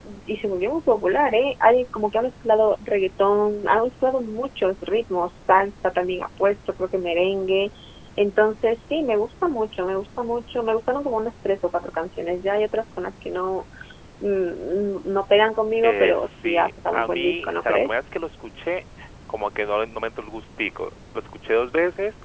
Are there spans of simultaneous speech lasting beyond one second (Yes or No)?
Yes